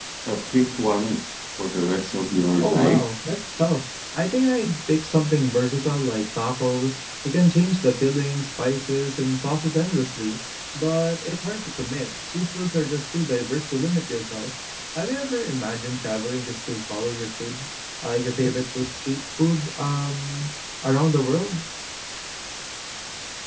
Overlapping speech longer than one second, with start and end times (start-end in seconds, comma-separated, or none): none